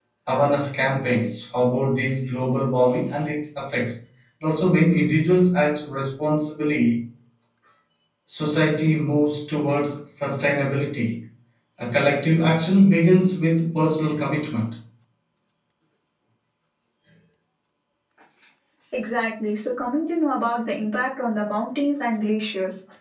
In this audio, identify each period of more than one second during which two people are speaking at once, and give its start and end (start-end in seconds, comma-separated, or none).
none